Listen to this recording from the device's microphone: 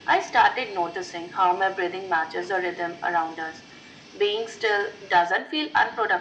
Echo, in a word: present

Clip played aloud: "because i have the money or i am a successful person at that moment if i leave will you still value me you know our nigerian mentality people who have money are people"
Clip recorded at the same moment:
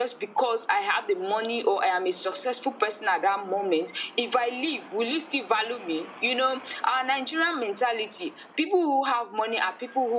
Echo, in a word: present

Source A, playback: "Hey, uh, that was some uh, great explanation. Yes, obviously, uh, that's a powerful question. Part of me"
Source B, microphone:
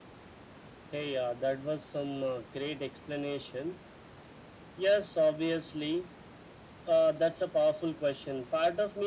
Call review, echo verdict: present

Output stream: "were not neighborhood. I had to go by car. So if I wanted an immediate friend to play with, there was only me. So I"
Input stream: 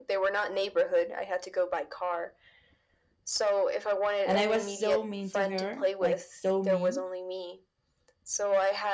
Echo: present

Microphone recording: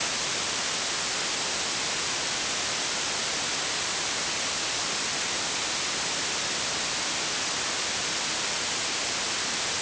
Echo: none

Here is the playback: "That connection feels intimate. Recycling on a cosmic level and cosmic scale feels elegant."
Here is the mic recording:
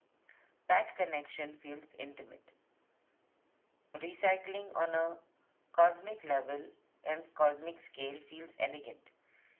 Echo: present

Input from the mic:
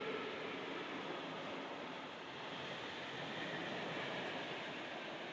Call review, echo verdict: none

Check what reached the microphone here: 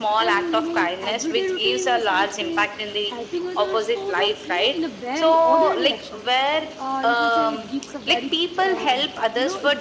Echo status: present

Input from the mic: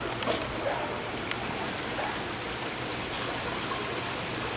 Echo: none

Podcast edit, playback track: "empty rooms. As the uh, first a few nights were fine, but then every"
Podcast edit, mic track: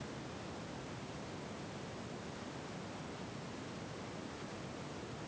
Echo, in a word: none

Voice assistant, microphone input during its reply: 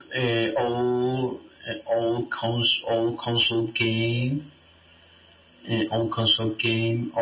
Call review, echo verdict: present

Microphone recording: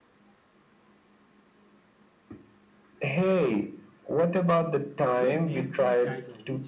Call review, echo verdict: present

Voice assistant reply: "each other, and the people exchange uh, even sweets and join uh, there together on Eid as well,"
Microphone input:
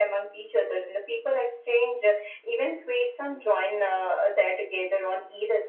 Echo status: present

